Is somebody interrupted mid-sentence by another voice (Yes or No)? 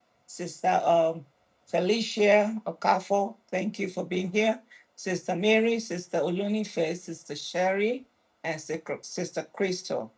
No